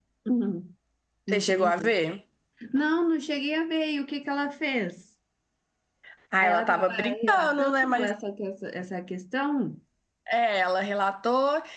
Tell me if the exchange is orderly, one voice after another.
No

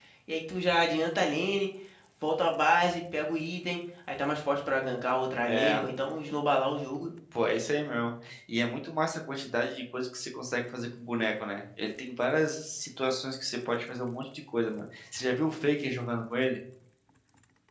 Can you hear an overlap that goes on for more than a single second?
No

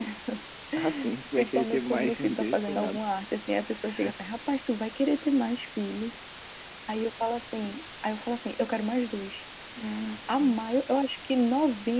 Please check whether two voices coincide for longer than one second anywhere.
Yes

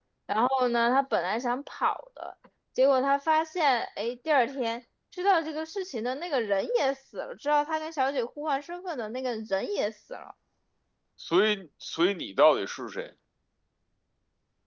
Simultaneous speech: No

